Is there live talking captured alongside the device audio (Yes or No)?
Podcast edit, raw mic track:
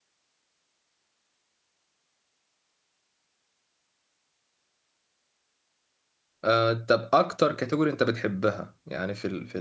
Yes